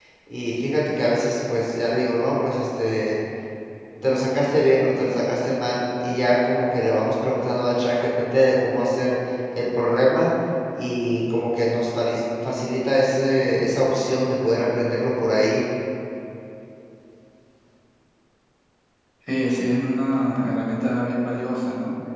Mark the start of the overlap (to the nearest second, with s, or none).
none